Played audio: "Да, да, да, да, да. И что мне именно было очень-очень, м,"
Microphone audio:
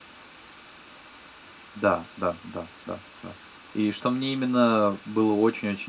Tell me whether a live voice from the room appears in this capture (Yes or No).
No